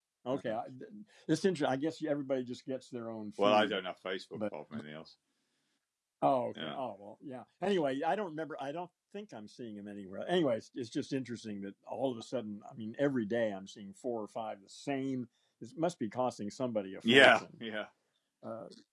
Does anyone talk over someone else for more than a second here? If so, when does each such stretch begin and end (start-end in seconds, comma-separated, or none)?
none